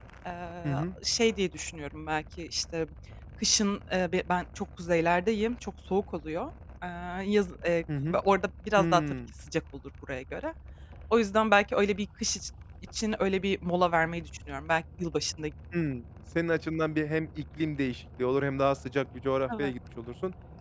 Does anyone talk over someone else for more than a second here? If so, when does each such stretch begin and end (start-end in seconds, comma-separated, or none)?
none